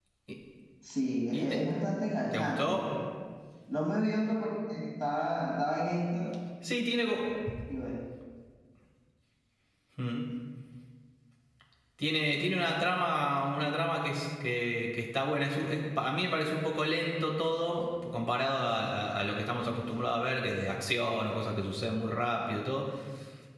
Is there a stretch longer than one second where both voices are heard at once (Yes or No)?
No